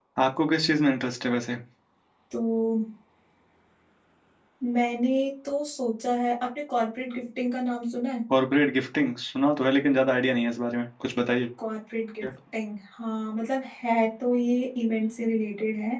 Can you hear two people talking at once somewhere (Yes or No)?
No